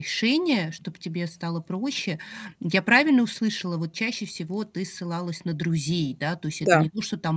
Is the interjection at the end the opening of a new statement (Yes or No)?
No